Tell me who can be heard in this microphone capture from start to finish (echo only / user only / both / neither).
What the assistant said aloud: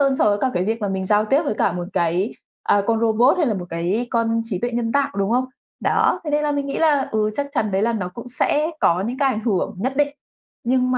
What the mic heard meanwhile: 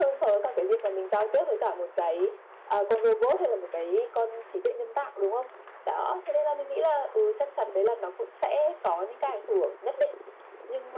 echo only